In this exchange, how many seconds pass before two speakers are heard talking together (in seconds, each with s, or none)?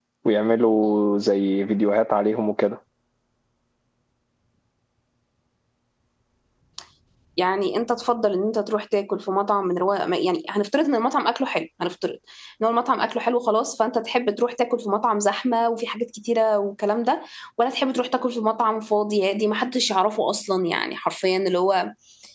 none